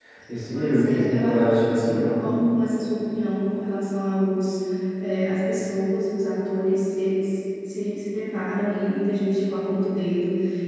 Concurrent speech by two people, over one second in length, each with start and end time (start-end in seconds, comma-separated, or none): 0.5-2.2